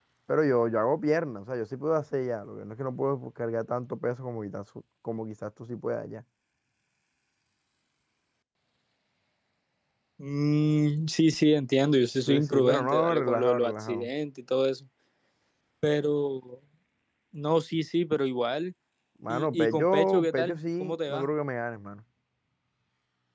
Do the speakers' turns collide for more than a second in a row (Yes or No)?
Yes